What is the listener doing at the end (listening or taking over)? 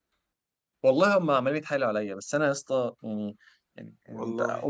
listening